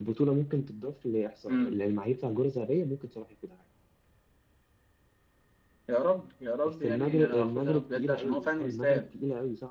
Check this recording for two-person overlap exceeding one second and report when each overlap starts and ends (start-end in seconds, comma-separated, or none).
6.6-9.0